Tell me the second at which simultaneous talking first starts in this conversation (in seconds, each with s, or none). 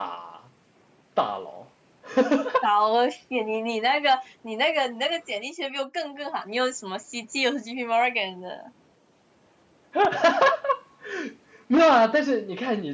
none